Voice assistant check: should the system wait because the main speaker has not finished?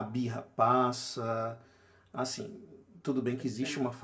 Yes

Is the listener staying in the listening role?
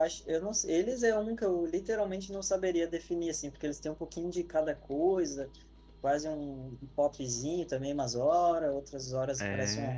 Yes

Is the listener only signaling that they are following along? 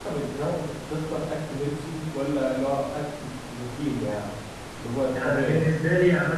No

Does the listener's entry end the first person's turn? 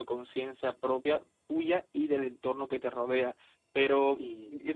No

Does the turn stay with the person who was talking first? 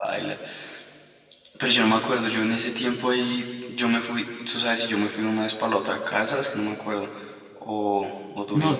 No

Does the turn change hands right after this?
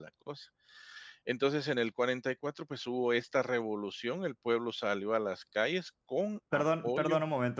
Yes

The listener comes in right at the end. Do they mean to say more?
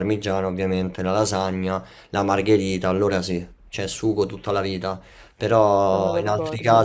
No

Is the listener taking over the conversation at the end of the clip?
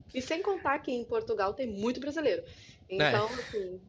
No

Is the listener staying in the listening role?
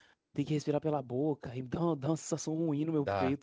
No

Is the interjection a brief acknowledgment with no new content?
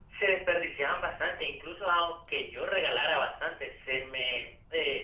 Yes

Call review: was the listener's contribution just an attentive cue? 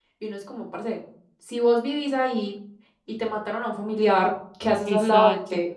No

